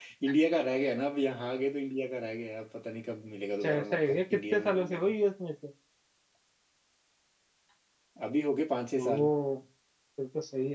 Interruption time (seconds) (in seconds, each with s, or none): 3.6 s